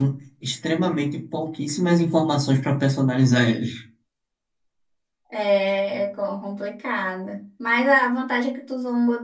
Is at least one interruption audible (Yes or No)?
No